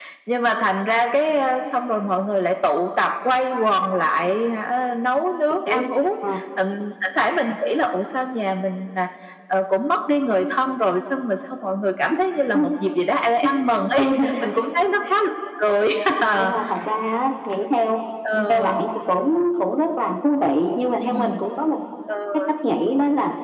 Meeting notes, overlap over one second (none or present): none